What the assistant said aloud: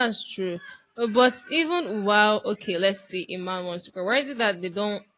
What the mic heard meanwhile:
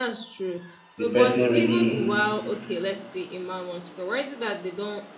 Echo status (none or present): present